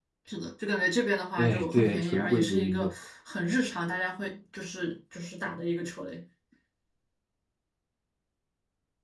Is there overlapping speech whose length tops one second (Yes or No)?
Yes